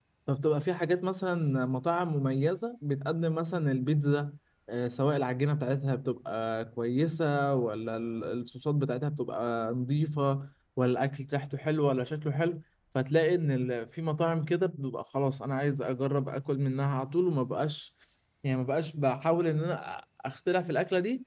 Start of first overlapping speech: none

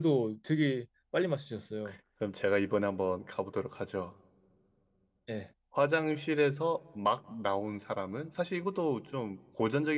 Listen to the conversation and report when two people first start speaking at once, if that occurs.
none

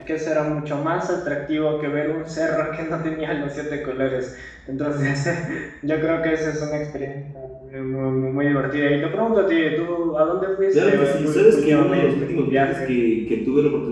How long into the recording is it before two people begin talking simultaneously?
10.7 s

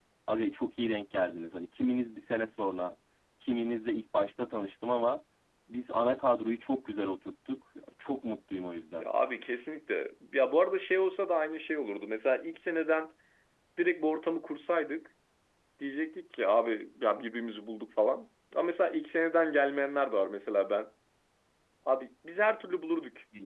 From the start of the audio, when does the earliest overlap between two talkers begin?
none

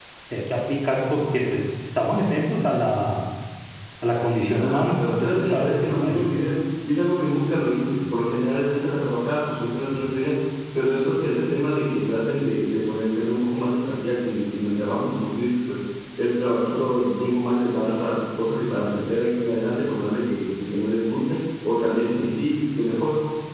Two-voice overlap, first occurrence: 4.5 s

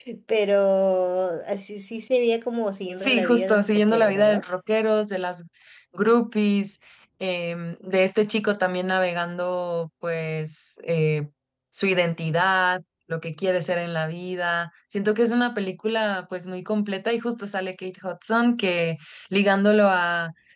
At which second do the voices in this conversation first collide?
3.0 s

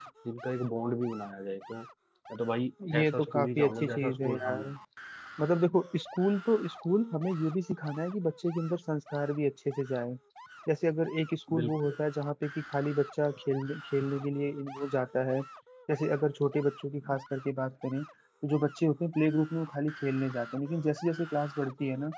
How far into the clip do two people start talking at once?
2.9 s

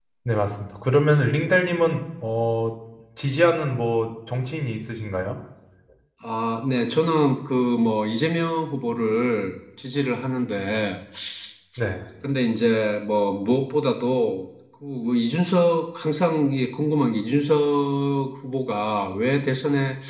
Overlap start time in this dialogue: none

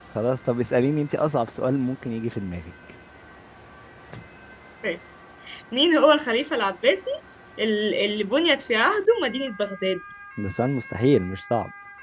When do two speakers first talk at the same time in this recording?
none

